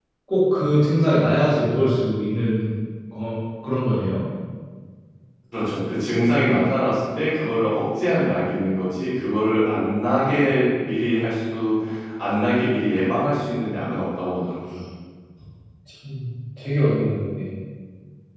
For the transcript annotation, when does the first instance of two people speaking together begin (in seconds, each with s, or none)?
none